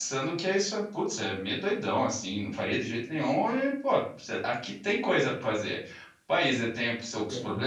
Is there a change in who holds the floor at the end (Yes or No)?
No